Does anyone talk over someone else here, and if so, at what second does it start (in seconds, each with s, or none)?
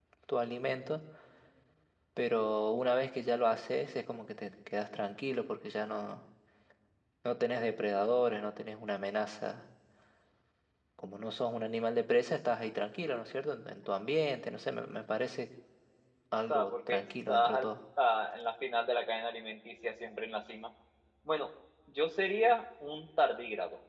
16.5 s